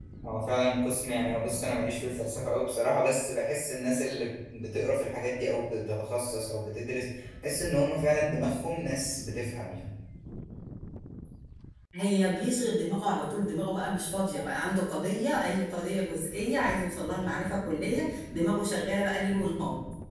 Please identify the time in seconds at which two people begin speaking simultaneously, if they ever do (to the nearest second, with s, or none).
none